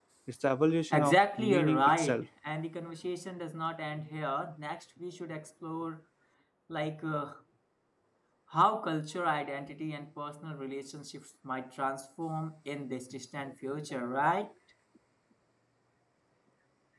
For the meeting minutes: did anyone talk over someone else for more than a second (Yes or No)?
Yes